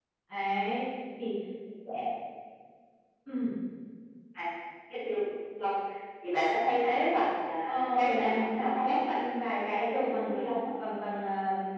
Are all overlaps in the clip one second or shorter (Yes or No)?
No